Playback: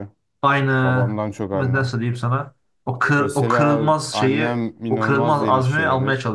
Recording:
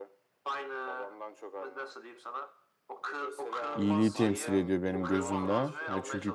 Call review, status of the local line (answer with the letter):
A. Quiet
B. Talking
B